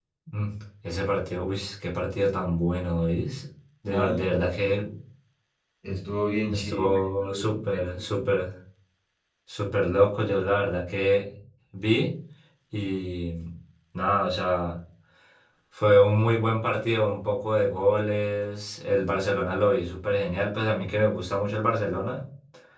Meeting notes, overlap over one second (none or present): present